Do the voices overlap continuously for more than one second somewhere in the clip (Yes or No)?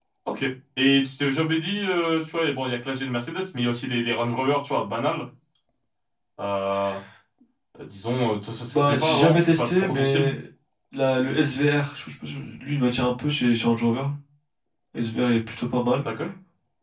Yes